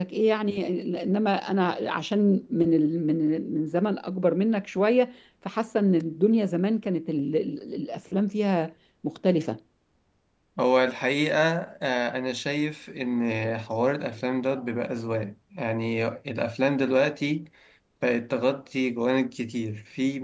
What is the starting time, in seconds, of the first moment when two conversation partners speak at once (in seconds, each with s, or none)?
none